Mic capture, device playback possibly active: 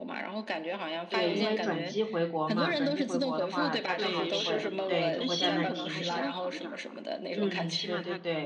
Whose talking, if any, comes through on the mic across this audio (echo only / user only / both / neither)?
both